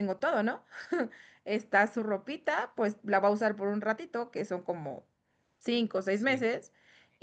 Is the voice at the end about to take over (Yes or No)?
No